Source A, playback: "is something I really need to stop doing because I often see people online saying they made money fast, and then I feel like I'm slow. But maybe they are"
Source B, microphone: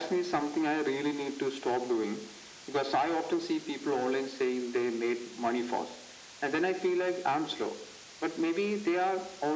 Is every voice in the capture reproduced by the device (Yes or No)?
Yes